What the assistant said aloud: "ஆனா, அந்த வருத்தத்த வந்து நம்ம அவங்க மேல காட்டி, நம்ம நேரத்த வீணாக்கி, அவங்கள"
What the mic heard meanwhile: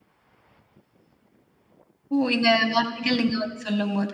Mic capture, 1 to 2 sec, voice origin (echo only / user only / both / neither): neither